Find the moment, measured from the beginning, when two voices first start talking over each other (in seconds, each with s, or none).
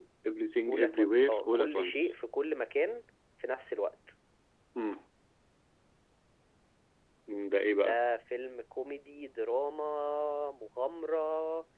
0.7 s